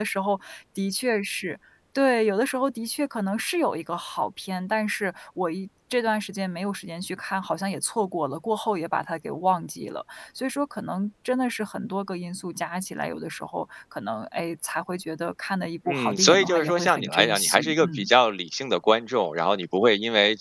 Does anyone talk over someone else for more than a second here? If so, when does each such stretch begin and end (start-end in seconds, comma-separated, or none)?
15.9-18.1